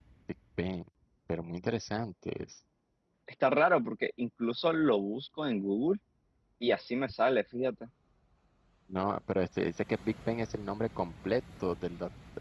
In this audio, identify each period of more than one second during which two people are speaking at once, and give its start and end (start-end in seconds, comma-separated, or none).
none